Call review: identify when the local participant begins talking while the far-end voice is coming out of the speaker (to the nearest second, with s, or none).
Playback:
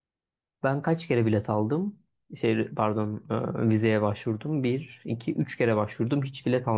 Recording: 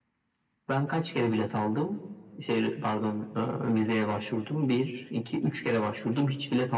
none